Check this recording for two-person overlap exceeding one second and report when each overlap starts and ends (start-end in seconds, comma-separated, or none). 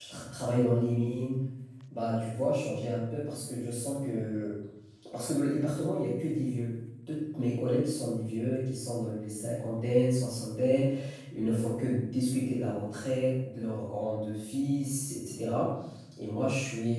none